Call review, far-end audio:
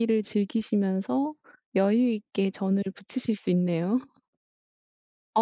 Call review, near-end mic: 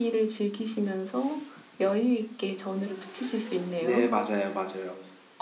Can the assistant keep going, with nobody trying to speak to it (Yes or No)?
No